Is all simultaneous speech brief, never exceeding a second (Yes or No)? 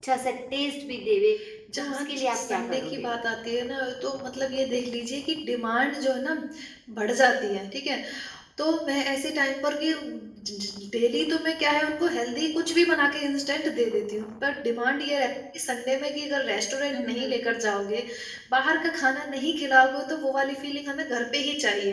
No